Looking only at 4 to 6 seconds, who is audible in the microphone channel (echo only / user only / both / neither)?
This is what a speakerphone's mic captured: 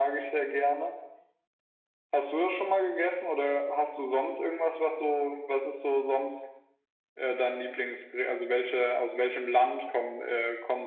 echo only